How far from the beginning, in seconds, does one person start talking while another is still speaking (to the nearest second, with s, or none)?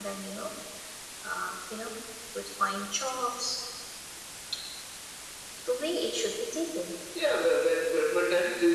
none